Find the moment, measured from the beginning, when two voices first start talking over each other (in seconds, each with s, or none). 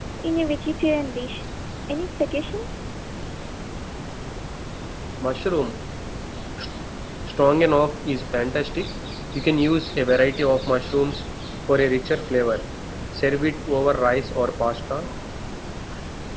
none